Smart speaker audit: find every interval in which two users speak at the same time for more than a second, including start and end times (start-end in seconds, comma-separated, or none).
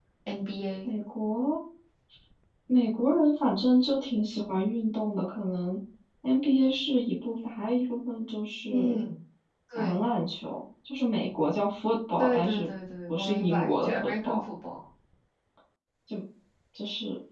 13.1-14.4